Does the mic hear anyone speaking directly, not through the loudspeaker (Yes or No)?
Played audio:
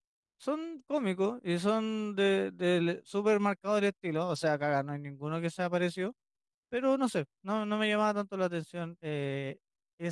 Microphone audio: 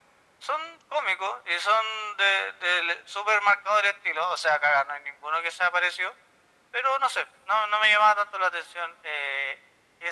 No